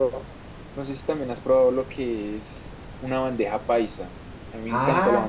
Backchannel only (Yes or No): No